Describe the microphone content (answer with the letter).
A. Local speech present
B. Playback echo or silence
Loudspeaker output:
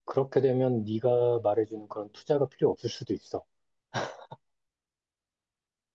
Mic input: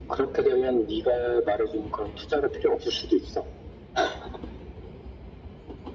B